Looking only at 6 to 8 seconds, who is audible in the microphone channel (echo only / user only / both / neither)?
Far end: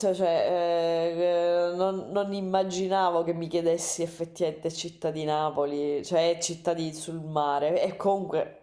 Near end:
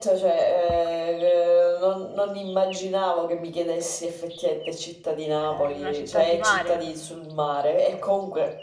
both